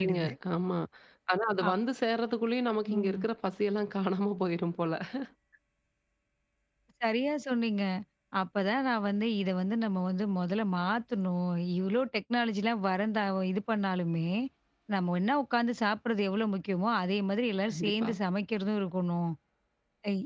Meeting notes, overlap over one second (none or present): none